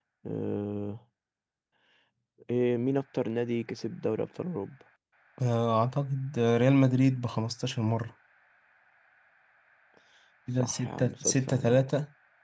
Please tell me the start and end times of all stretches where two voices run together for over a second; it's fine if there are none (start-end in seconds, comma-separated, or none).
10.6-11.8